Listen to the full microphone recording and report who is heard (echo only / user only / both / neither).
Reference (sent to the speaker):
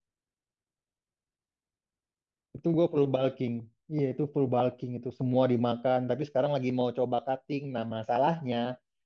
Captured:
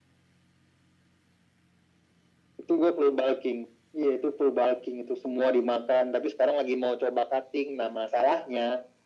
echo only